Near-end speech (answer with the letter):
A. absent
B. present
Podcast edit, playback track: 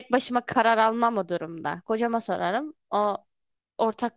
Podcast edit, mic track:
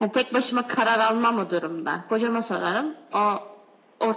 A